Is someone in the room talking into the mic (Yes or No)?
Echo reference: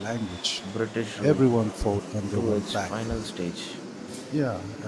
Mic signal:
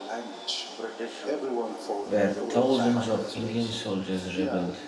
Yes